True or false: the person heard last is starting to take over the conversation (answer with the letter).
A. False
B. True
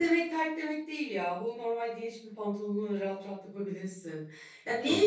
A